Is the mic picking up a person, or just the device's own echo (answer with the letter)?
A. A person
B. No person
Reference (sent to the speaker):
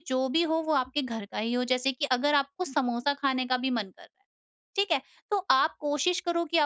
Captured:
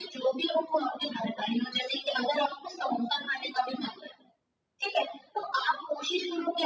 B